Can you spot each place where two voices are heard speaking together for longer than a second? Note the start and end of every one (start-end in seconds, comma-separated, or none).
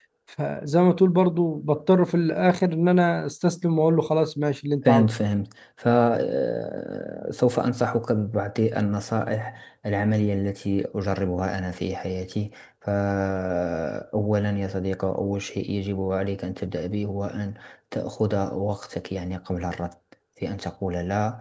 none